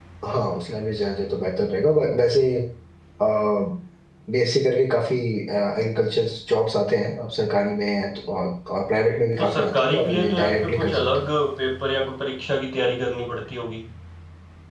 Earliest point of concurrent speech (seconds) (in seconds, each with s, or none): 9.4 s